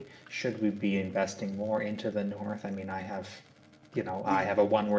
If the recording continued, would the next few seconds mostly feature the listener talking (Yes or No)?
No